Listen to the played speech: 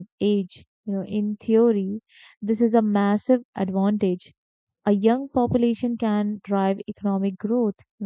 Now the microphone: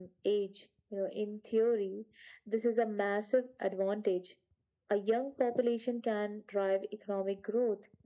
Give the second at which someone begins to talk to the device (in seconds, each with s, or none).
none